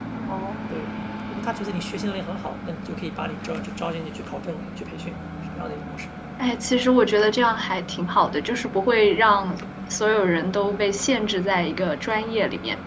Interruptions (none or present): none